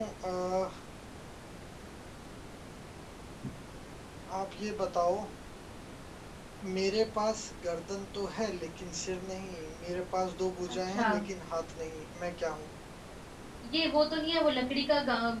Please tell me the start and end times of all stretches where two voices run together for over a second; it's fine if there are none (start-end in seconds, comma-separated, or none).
none